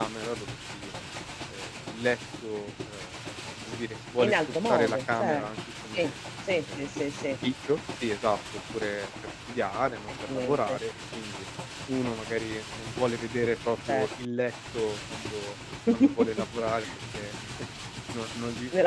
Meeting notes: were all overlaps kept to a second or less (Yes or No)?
No